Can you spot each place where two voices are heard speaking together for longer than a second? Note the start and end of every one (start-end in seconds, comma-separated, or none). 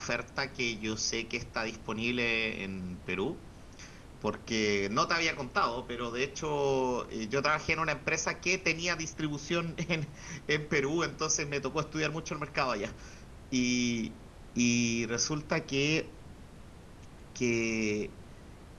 none